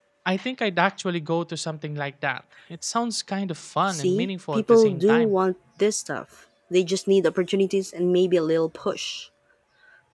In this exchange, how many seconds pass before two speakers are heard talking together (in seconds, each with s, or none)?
3.9 s